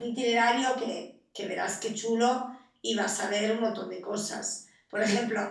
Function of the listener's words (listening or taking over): listening